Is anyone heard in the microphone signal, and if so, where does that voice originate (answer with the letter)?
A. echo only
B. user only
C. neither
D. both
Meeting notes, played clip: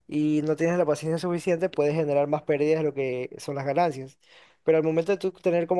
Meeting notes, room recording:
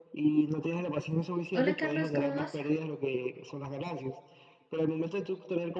D